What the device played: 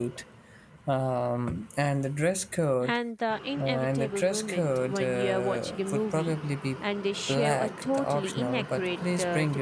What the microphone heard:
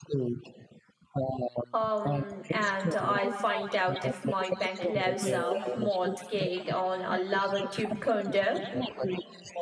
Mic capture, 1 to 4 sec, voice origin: both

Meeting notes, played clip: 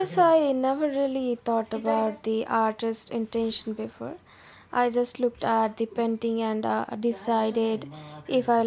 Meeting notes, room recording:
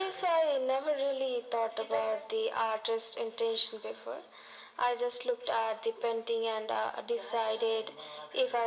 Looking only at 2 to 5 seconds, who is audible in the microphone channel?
echo only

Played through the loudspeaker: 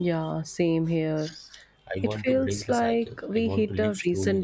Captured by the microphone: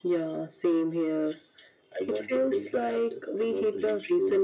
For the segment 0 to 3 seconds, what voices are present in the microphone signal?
echo only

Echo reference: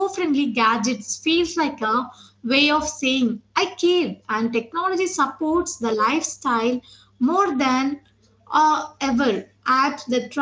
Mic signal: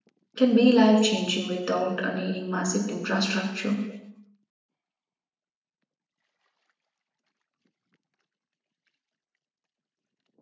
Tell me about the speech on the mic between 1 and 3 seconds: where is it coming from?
user only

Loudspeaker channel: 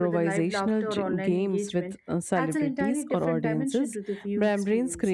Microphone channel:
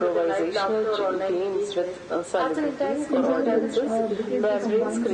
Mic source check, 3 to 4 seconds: both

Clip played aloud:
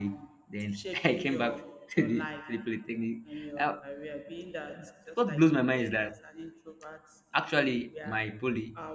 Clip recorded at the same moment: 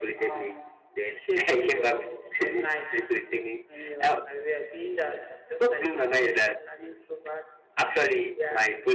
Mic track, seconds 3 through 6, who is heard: echo only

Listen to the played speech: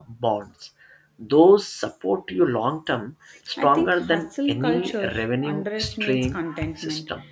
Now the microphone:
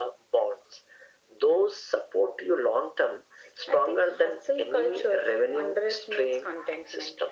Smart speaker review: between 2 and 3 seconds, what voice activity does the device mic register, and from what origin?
echo only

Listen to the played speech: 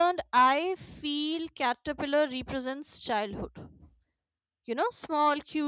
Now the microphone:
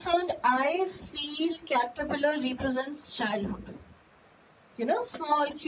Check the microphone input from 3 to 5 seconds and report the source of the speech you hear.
echo only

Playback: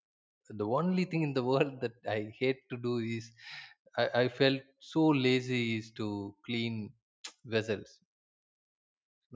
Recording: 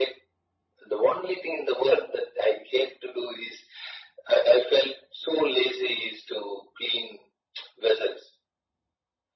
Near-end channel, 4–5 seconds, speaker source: echo only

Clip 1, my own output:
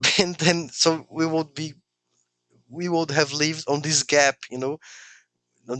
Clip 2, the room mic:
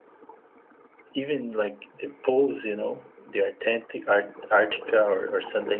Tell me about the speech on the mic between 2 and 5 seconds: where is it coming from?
user only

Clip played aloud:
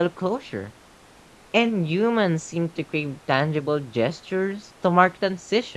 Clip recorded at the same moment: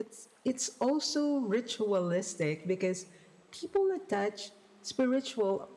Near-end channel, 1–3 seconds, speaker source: user only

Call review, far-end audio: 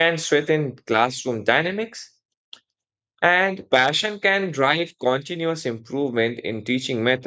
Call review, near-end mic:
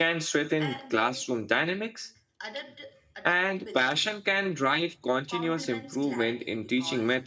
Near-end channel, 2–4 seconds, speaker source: both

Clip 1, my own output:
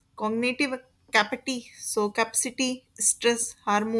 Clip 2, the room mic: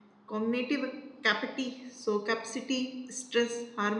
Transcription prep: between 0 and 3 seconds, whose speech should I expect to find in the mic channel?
echo only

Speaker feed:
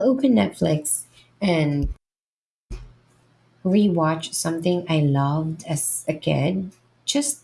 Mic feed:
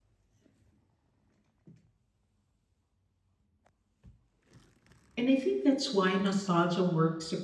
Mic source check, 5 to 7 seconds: user only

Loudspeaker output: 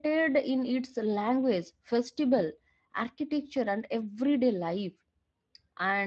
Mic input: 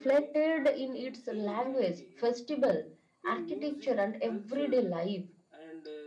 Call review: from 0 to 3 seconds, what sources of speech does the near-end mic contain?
both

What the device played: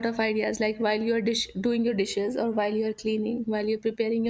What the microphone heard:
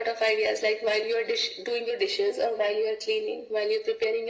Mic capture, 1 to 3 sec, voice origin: echo only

